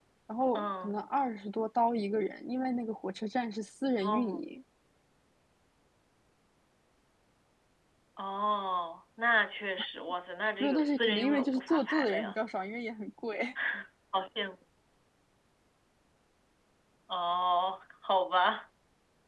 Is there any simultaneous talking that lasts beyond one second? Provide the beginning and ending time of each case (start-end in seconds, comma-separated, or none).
10.6-12.4